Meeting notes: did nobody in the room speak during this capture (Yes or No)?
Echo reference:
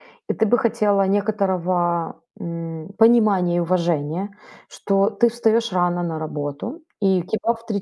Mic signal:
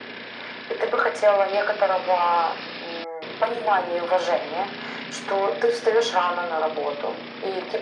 Yes